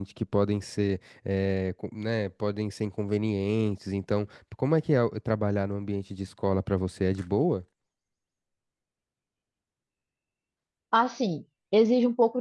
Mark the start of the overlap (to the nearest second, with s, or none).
none